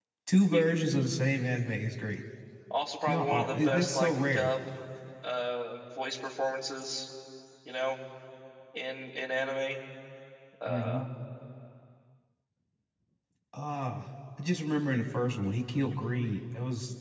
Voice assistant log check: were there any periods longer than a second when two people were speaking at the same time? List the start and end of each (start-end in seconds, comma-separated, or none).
3.1-4.5